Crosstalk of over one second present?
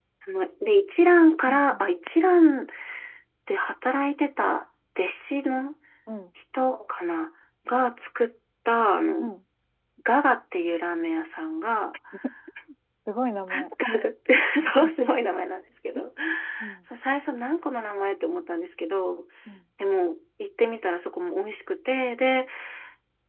No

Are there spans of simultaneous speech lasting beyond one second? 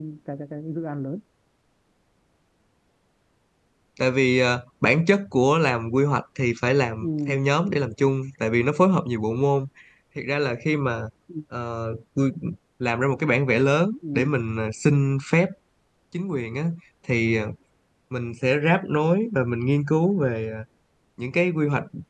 No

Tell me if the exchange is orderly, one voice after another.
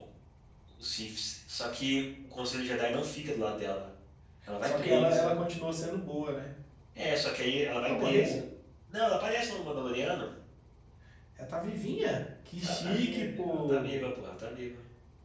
No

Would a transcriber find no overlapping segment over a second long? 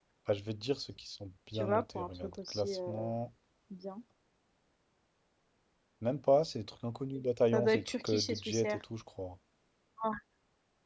No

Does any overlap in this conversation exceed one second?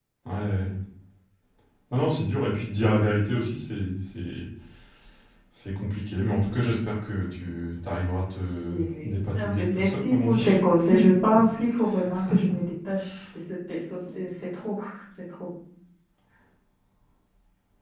Yes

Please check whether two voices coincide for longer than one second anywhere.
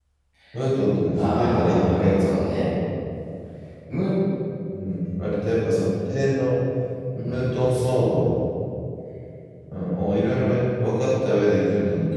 Yes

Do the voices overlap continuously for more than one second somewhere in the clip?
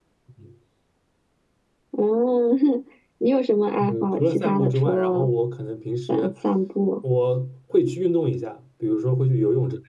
Yes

